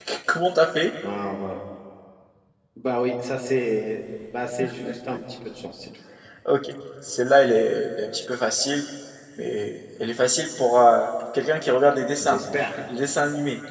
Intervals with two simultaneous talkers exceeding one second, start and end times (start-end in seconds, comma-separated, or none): none